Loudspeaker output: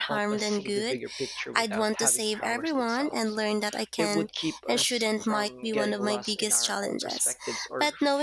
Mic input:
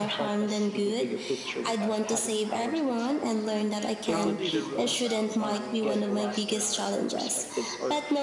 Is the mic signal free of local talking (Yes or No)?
No